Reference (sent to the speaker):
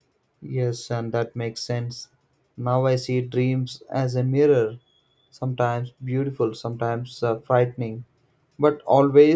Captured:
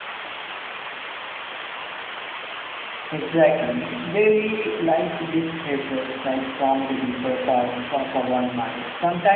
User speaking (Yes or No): Yes